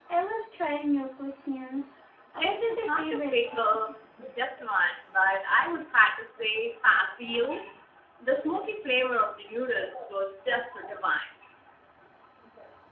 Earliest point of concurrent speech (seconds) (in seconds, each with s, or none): 2.4 s